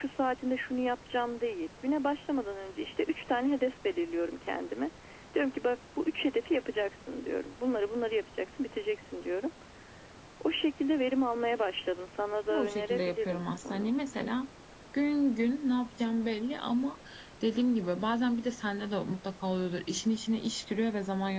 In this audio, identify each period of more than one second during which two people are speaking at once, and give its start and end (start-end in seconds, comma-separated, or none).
12.5-13.9